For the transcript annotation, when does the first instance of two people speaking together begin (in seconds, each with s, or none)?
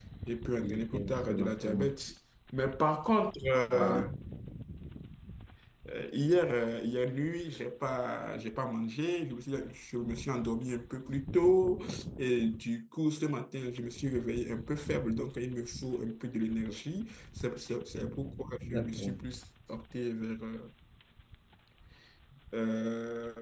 0.6 s